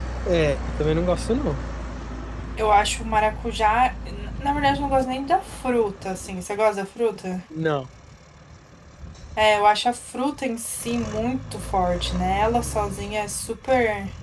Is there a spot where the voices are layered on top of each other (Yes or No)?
No